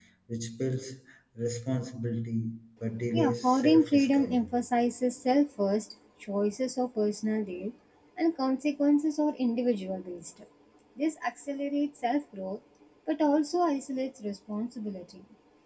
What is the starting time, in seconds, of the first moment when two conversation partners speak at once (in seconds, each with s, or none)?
3.1 s